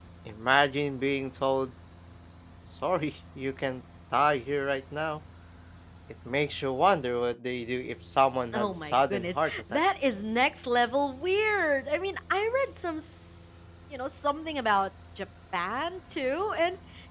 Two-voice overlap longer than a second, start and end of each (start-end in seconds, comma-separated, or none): 8.5-9.8